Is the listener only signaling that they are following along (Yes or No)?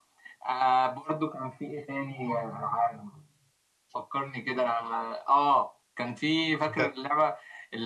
Yes